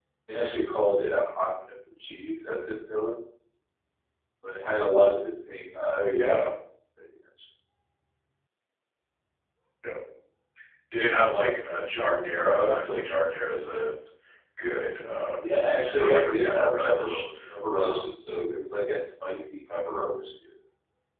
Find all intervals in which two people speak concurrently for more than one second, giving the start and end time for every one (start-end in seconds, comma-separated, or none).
15.9-17.2